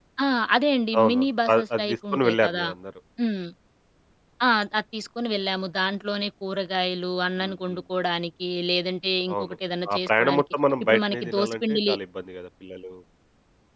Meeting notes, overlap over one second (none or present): present